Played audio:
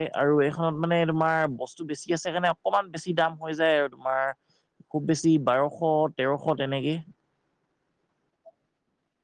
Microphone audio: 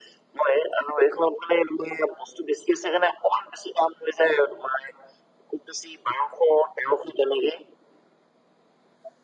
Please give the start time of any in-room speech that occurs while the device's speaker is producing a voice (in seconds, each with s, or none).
none